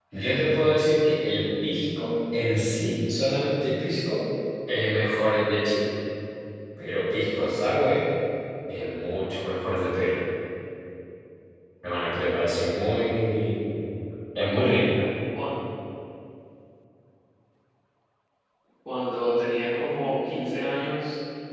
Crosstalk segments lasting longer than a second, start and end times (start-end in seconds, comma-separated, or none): none